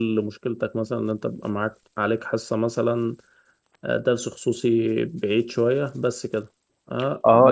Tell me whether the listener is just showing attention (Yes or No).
No